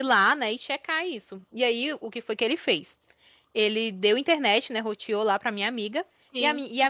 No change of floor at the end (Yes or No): Yes